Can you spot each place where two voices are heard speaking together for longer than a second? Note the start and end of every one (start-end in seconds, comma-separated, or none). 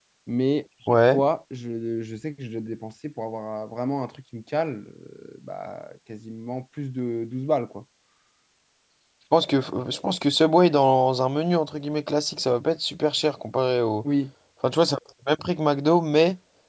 none